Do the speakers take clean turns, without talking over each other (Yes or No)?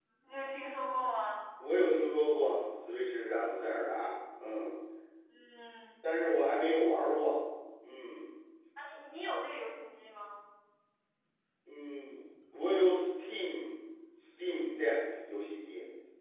Yes